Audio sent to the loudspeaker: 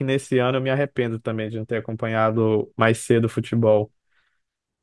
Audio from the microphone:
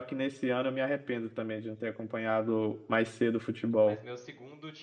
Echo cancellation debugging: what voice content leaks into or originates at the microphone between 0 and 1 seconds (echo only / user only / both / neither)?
echo only